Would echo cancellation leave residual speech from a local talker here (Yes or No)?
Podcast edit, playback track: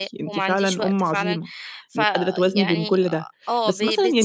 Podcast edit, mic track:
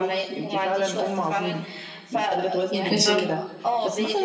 Yes